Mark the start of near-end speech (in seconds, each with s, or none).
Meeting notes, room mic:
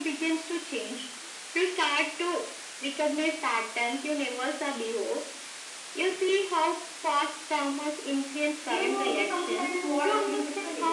8.6 s